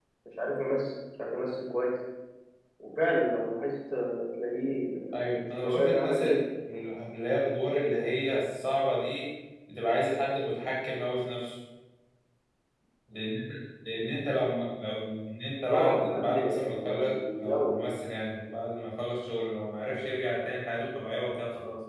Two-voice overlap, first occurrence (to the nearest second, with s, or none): 5 s